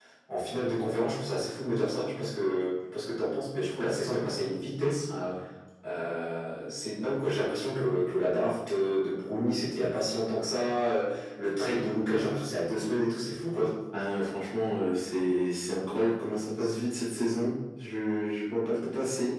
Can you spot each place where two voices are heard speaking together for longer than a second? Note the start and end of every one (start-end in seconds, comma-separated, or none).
none